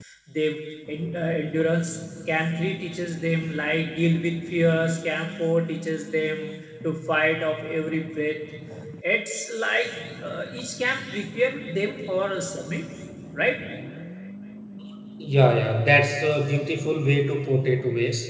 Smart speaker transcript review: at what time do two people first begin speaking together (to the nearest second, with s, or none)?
none